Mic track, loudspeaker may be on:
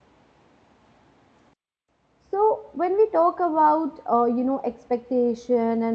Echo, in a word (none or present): none